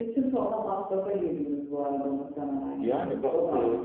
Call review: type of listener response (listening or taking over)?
taking over